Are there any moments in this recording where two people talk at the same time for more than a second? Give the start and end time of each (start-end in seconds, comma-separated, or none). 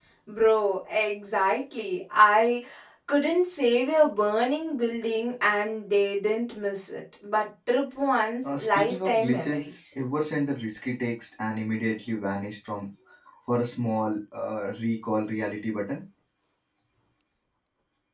8.4-9.8